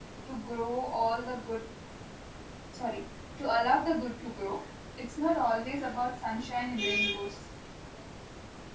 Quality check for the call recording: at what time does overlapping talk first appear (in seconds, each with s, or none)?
none